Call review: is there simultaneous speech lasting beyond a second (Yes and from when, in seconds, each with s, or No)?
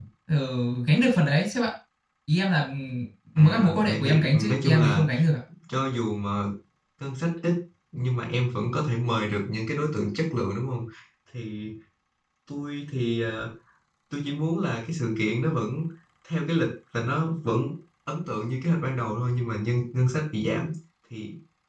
Yes, from 3.4 s